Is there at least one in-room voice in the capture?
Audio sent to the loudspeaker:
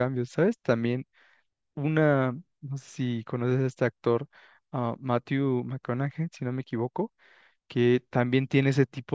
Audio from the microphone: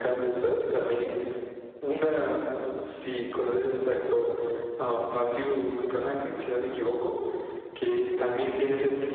No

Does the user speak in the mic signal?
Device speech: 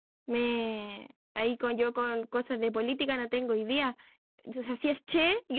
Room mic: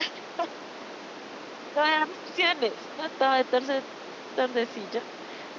Yes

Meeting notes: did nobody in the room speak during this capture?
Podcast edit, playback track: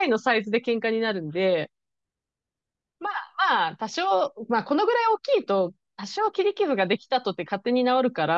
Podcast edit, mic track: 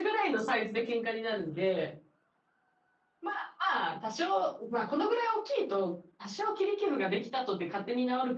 Yes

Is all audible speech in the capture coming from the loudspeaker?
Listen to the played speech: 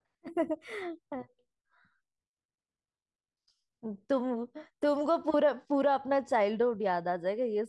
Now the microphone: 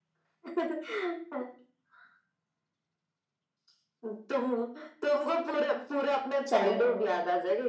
No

